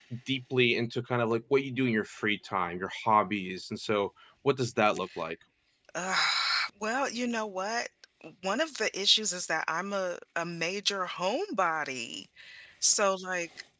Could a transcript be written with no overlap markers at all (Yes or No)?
Yes